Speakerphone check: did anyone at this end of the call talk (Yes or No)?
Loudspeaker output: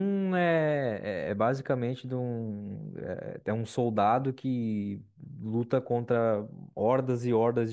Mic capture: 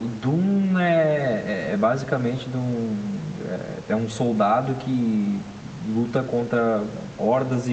No